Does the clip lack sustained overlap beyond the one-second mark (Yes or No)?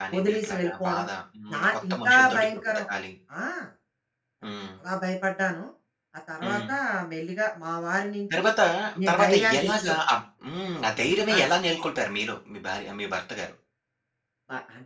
No